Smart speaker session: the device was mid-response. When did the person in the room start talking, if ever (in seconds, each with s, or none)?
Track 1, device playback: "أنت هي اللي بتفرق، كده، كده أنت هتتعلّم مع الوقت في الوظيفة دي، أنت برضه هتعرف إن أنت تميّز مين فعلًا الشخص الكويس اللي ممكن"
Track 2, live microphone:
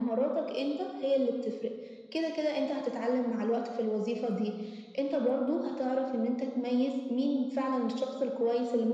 none